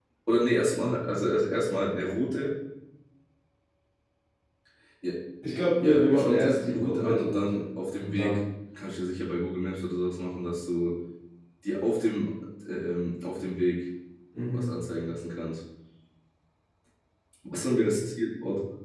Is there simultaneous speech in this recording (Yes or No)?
Yes